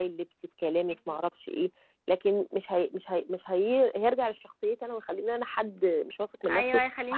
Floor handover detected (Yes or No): Yes